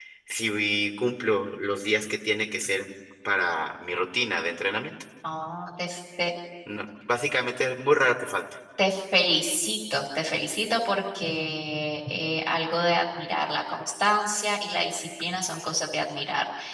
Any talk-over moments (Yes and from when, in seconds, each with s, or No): No